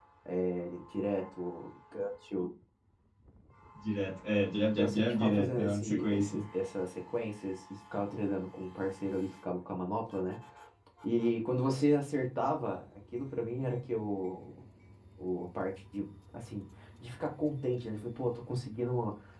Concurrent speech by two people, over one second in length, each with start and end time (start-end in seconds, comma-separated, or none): 4.8-6.4